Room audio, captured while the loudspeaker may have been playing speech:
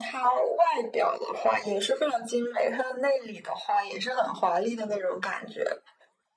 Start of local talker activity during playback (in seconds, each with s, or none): none